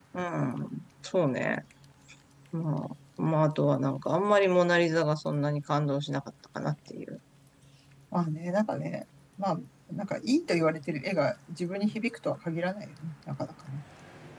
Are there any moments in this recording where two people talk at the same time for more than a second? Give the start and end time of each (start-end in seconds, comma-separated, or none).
none